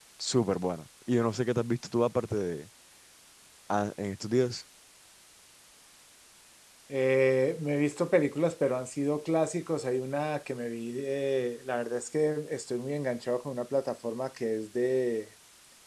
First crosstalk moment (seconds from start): none

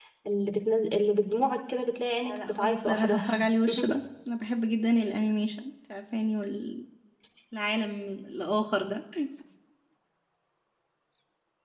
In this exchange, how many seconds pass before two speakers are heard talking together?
2.2 s

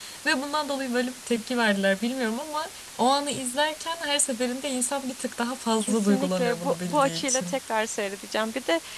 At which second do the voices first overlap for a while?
5.8 s

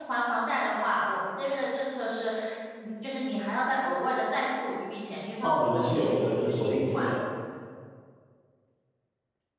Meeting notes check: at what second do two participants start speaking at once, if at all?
5.4 s

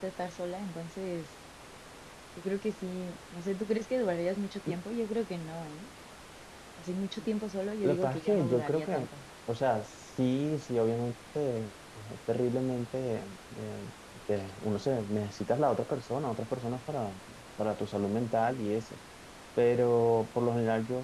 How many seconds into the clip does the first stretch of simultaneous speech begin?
7.8 s

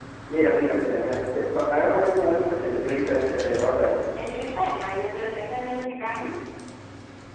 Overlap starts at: none

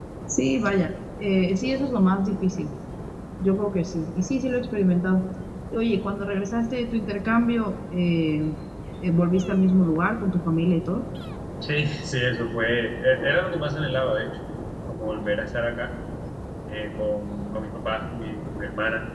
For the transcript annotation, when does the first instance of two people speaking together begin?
none

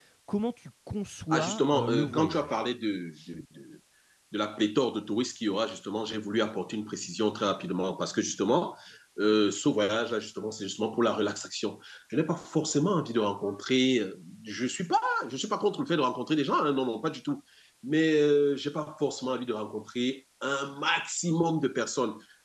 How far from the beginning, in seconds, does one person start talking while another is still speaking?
1.3 s

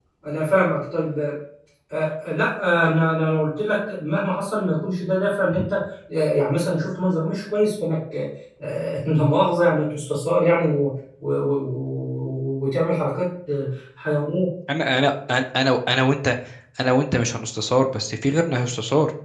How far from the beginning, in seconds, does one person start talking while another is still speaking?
none

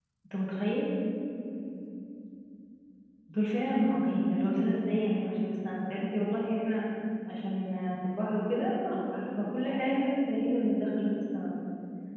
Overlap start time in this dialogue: none

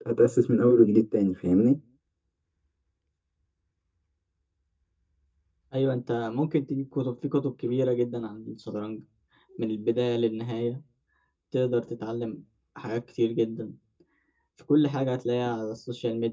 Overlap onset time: none

